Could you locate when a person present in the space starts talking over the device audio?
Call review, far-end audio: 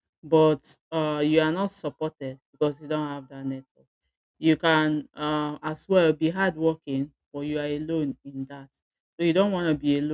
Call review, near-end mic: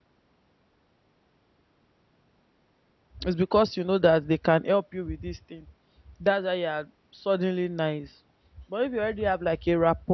3.2 s

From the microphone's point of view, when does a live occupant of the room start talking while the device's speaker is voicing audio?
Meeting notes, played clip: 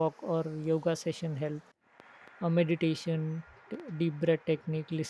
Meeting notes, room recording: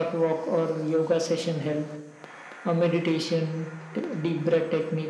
none

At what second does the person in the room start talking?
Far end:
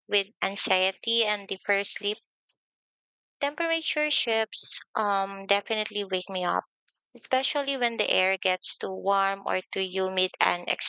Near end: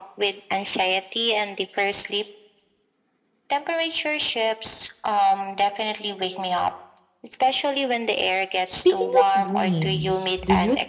8.6 s

